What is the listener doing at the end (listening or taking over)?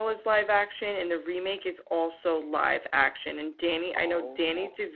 listening